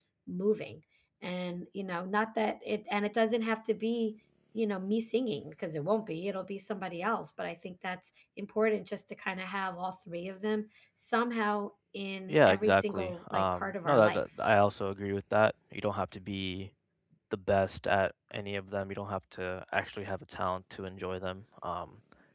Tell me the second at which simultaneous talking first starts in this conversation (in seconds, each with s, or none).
12.3 s